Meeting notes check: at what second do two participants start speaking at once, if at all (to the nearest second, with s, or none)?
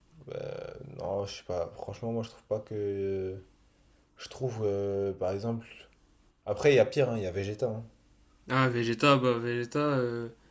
none